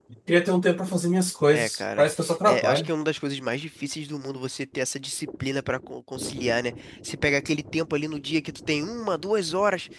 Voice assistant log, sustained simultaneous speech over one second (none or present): none